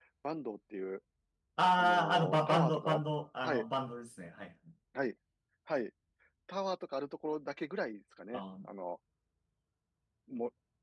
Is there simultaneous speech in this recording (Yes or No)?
Yes